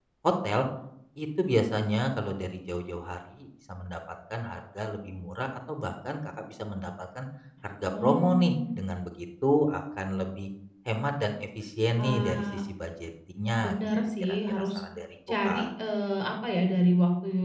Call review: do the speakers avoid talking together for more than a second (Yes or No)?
No